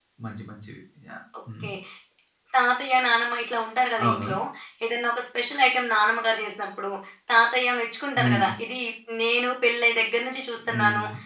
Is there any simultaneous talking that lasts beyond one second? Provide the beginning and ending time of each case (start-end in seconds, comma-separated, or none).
none